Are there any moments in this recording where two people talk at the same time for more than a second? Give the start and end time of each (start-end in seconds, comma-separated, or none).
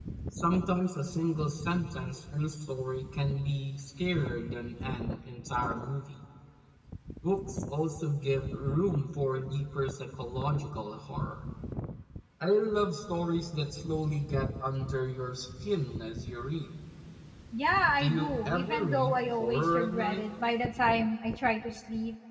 18.0-20.2